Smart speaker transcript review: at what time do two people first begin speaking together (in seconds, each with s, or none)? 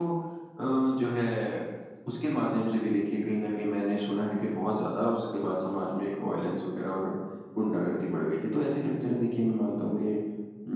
none